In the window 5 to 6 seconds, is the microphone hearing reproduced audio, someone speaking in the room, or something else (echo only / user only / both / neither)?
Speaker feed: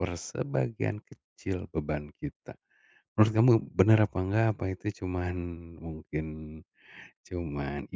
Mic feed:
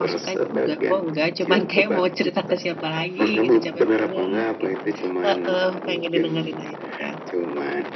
both